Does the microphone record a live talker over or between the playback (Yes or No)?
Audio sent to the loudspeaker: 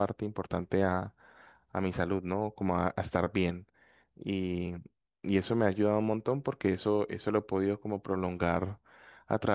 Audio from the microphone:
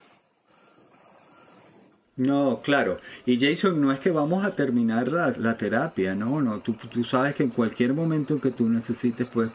Yes